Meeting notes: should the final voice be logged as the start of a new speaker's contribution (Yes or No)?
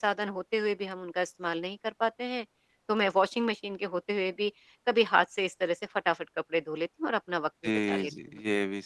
Yes